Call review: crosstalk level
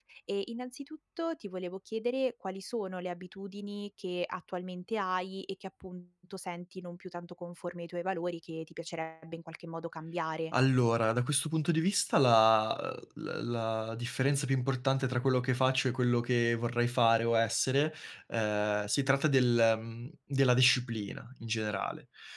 none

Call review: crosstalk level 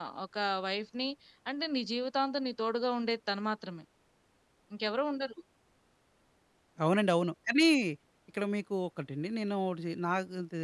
none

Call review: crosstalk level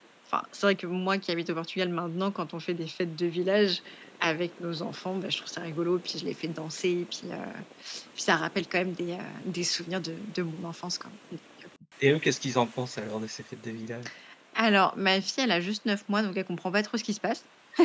none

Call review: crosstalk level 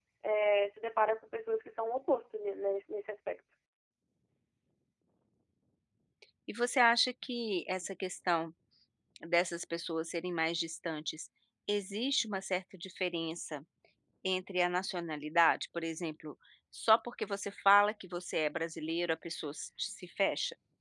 none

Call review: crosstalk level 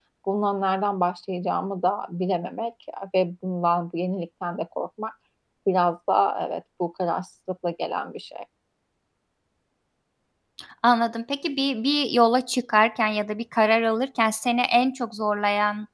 none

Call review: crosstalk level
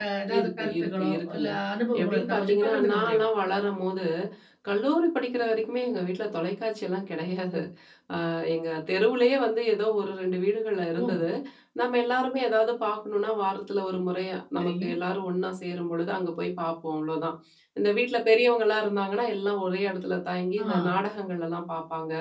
present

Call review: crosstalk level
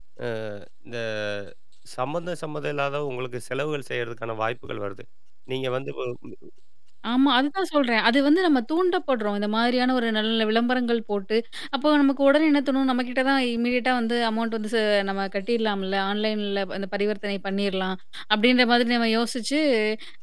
none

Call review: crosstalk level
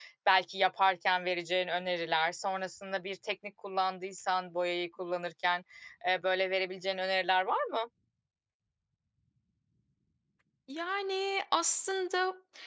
none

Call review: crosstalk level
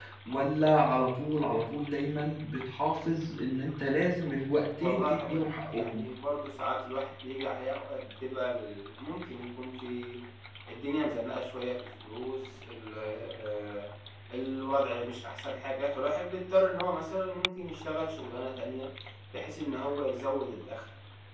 present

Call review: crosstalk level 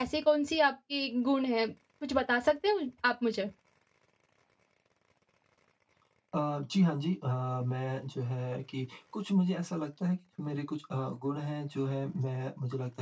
none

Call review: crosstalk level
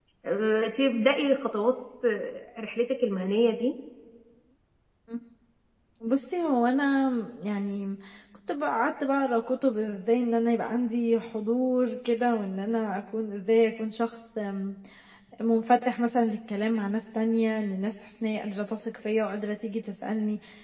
none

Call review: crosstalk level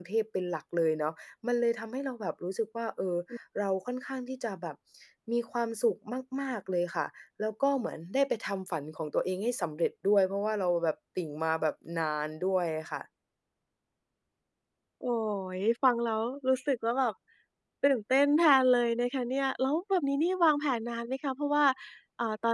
none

